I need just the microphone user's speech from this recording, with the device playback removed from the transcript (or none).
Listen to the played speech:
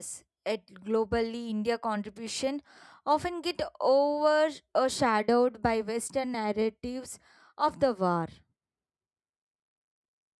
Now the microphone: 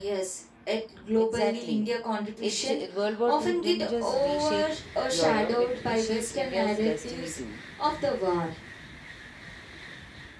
Exactly. It ju- World War 2 didn't just reshape Europe; it reshaped India's destiny too.